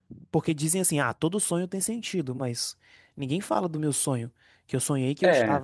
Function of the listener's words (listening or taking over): listening